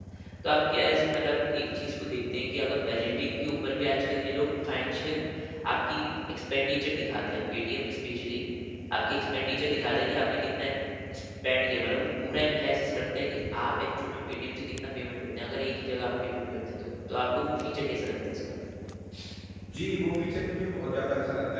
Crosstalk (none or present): none